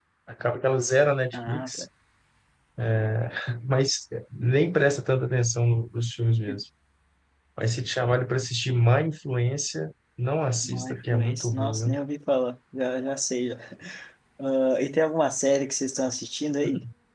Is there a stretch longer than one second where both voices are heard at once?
Yes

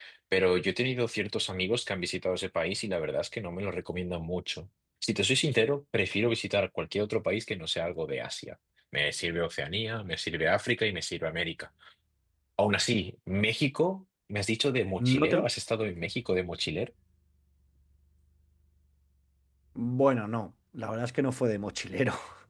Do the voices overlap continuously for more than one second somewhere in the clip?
No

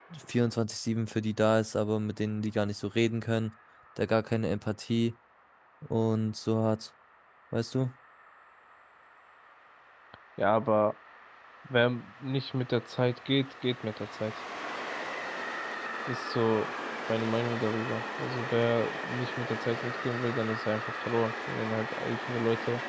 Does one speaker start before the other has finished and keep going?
No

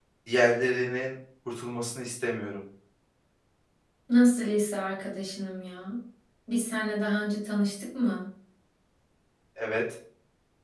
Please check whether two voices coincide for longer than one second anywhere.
No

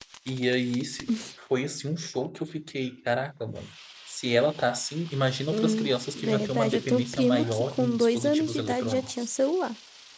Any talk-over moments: Yes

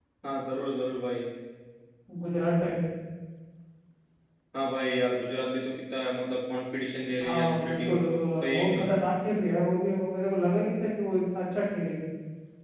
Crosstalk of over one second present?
Yes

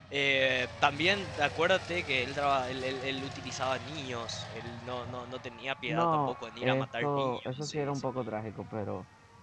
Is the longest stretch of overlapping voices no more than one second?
No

